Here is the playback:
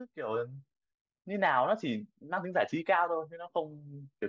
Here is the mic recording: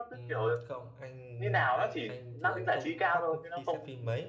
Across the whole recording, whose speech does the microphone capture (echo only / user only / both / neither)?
both